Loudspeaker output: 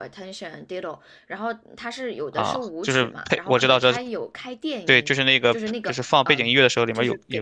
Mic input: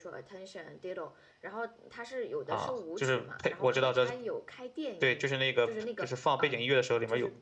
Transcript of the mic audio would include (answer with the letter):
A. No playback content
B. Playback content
B